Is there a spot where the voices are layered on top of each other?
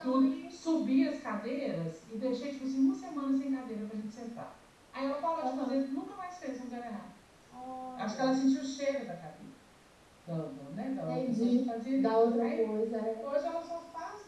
Yes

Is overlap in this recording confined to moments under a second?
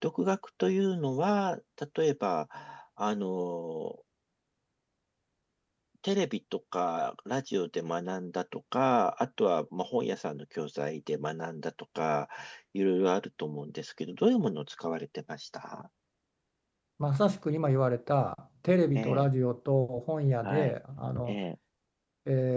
Yes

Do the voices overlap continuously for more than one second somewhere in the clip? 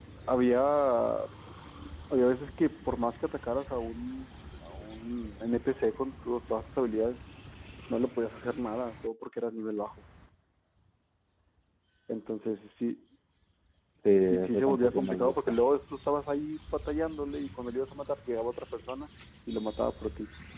Yes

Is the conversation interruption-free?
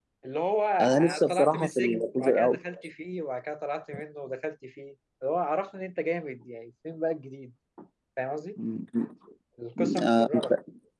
No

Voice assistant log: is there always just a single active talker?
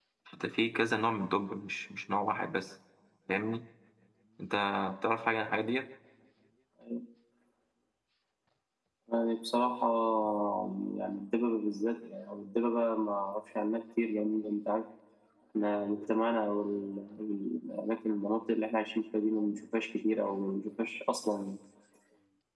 Yes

